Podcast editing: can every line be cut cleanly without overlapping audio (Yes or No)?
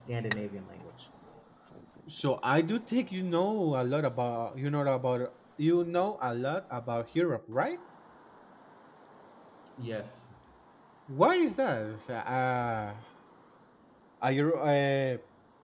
Yes